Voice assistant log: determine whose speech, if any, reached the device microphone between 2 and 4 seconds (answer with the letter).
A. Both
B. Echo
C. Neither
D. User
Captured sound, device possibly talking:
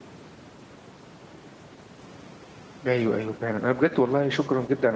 D